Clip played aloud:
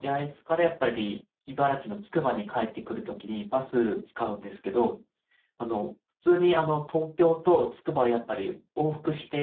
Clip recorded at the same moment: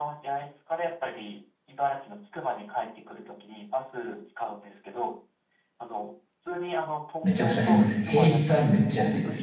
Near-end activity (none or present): present